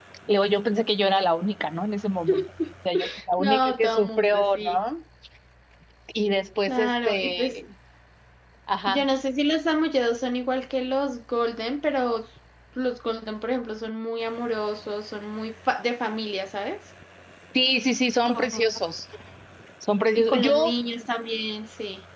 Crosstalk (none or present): present